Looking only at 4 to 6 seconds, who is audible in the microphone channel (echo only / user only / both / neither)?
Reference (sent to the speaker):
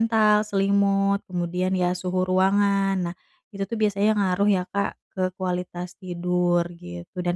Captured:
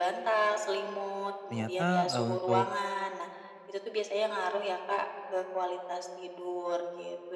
echo only